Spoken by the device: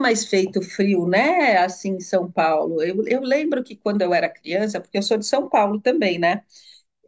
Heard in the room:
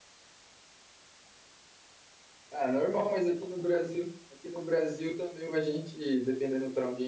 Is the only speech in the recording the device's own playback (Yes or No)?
No